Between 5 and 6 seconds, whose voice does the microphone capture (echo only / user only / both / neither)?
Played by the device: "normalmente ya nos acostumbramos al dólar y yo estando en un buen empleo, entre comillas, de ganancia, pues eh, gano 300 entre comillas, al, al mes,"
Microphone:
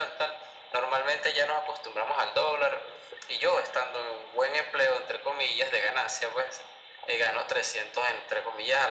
echo only